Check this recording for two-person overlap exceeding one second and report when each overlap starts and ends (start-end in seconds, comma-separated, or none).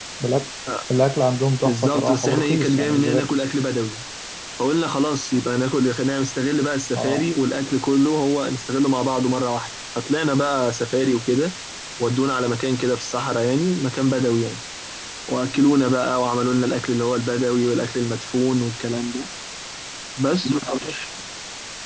1.6-3.4